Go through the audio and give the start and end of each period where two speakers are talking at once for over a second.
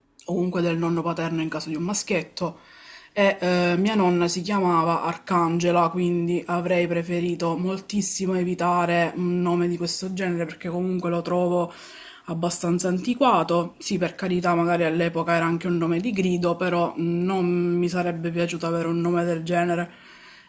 none

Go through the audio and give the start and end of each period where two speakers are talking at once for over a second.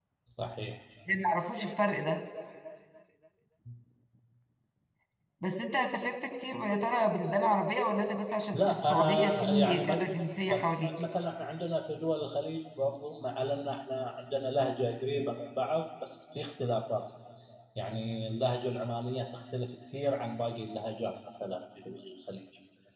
8.5-10.0

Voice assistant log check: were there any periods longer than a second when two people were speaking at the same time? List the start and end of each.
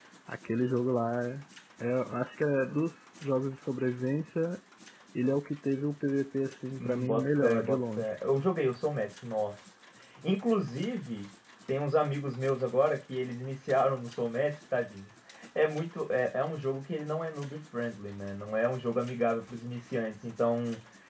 6.8-8.1

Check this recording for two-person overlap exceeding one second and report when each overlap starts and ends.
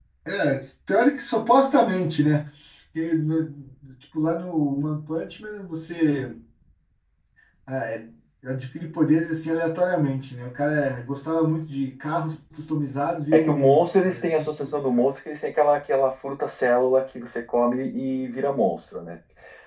13.3-14.7

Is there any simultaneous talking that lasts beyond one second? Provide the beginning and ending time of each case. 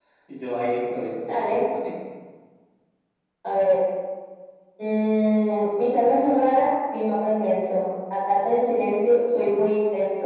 none

